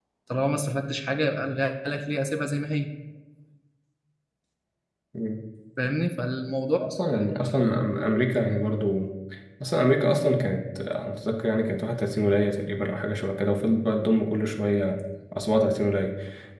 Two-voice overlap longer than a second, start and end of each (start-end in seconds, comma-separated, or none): none